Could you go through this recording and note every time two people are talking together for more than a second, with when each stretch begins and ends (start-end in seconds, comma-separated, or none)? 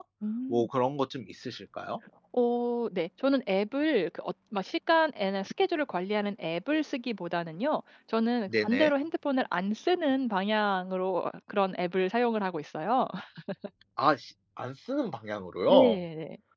none